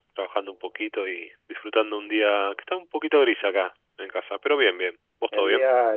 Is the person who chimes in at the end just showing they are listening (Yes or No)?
No